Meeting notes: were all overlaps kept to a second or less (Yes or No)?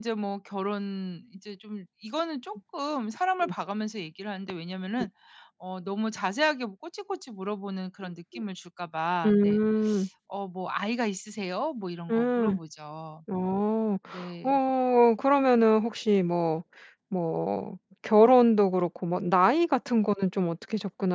Yes